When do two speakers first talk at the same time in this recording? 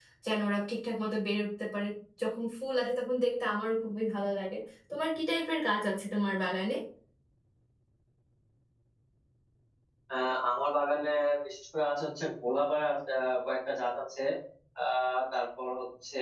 none

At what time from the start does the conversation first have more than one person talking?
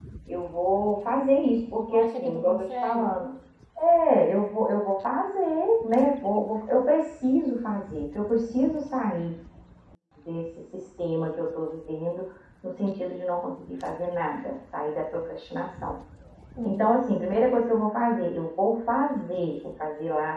1.9 s

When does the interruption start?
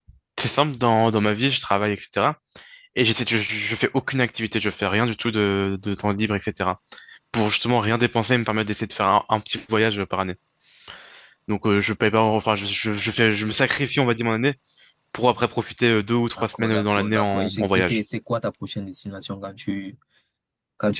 16.4 s

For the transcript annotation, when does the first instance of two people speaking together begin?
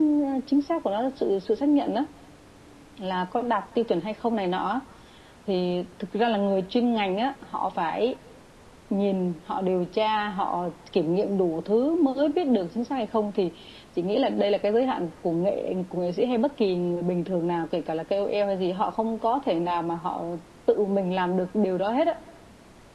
none

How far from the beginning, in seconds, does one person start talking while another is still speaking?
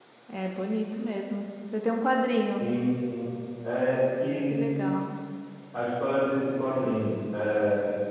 none

